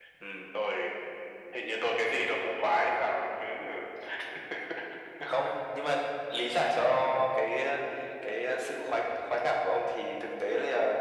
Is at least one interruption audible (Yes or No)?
No